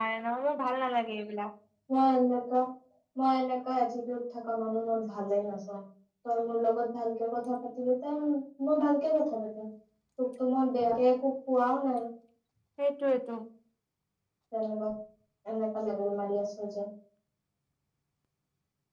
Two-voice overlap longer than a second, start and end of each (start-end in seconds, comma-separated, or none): none